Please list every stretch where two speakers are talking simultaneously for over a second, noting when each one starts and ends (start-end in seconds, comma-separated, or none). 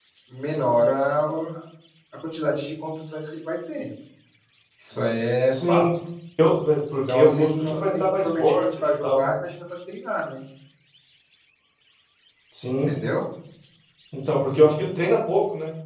7.1-9.3